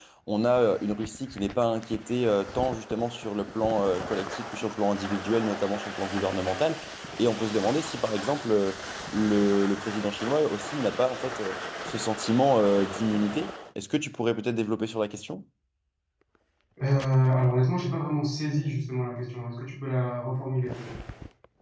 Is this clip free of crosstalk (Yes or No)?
Yes